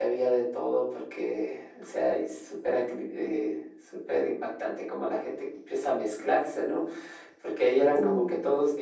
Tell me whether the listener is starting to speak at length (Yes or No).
No